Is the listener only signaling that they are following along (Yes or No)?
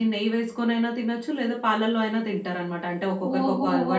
No